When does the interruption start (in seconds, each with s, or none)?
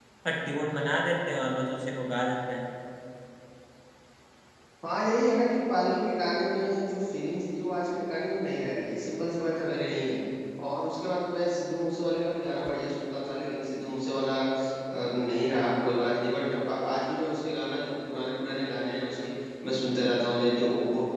none